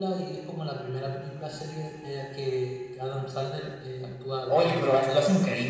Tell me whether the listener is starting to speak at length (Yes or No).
Yes